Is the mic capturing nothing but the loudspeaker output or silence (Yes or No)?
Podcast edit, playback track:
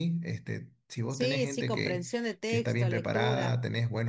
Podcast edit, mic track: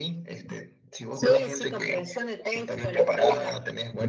Yes